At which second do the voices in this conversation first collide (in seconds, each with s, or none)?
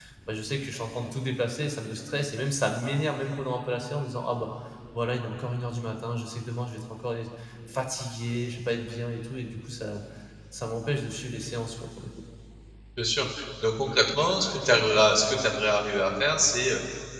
none